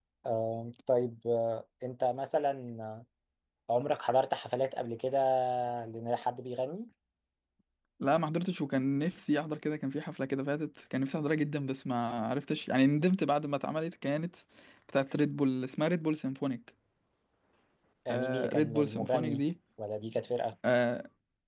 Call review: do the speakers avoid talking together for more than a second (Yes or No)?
No